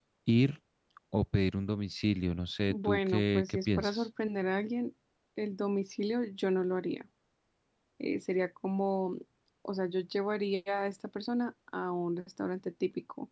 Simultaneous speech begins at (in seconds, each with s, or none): 2.7 s